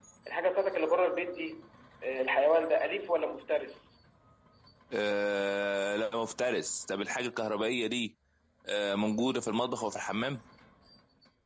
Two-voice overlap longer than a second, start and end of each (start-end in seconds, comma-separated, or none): none